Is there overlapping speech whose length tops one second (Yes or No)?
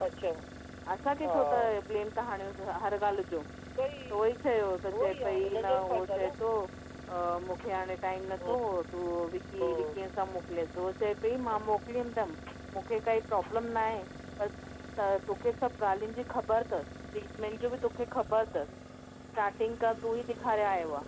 Yes